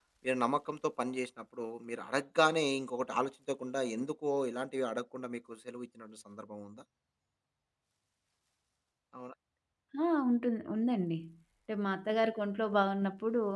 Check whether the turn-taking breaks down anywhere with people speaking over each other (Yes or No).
No